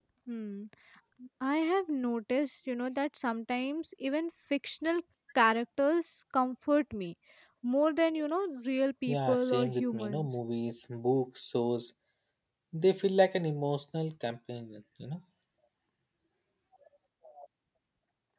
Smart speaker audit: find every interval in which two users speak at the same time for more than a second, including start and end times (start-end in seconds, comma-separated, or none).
9.1-10.3